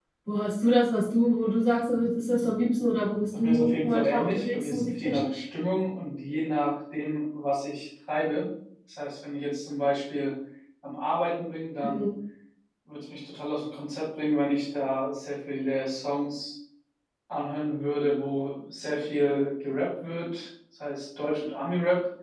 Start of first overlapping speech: 3 s

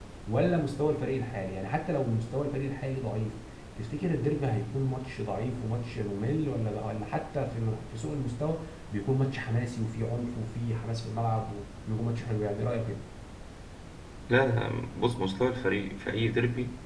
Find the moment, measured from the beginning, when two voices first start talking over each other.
none

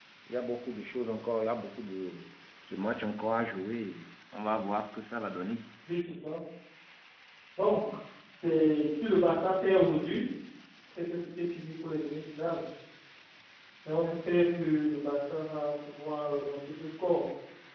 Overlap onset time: none

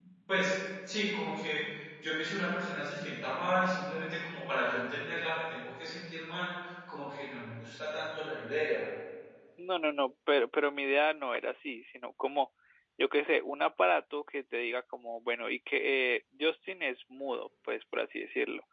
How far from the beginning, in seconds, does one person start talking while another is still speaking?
none

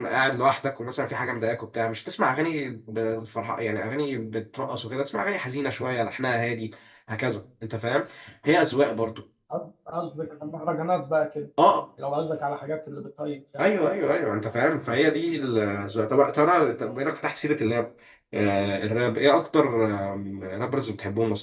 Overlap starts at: none

